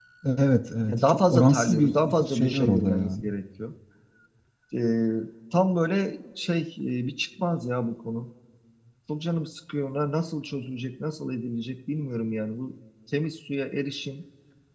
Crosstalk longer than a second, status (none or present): present